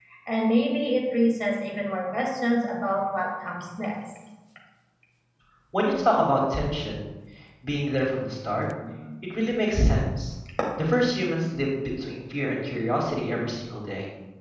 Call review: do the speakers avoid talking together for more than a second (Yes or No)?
Yes